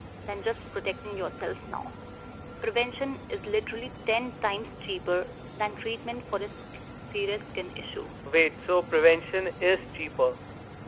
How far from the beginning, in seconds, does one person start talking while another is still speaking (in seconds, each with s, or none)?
none